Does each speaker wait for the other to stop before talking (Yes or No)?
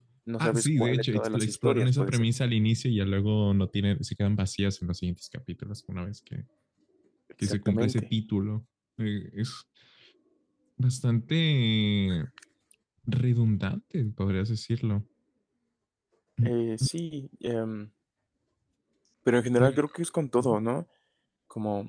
No